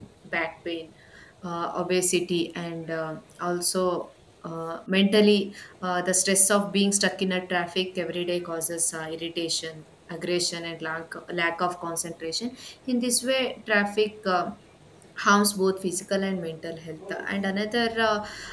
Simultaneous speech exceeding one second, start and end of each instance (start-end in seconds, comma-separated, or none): none